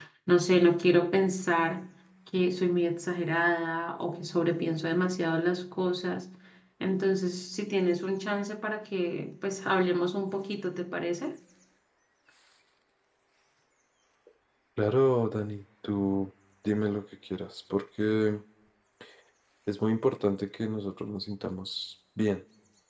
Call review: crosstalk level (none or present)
none